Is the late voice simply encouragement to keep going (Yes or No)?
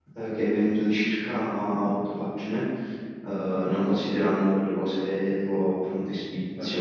Yes